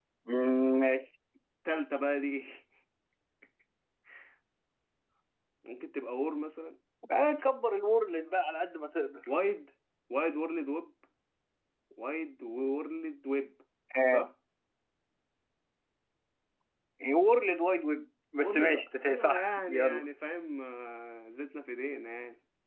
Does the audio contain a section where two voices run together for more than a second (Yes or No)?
Yes